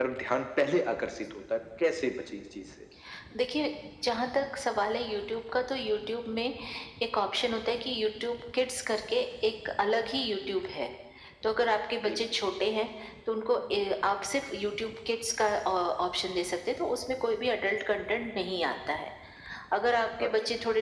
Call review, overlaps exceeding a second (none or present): none